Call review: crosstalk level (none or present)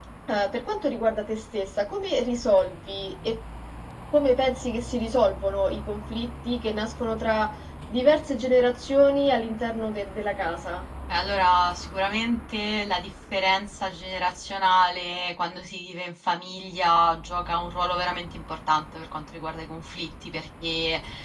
none